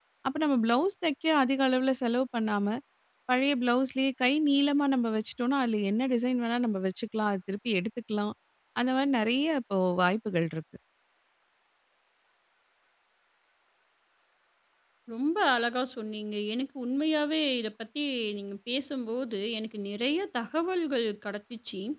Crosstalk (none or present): none